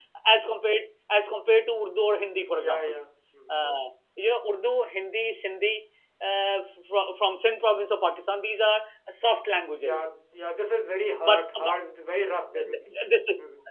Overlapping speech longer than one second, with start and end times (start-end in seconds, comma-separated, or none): none